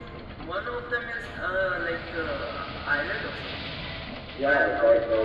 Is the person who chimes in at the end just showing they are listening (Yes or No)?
No